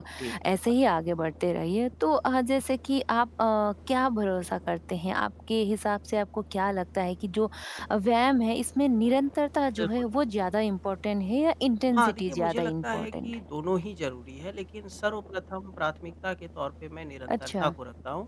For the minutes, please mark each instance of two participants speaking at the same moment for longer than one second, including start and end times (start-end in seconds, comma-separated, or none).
11.9-13.3